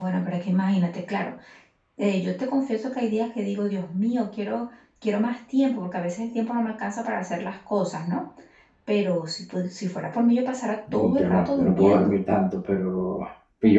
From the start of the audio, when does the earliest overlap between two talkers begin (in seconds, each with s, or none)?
10.9 s